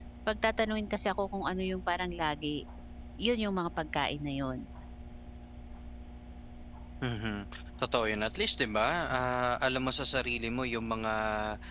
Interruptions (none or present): none